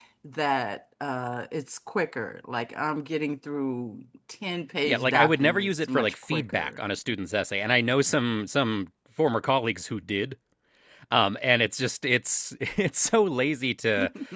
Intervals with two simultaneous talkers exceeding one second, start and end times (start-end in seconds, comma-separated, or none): 4.8-6.8